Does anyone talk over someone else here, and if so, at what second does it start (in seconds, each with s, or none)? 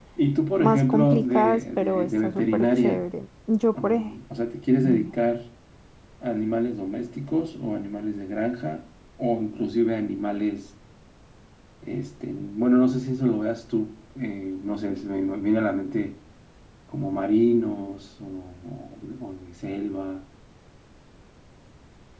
0.6 s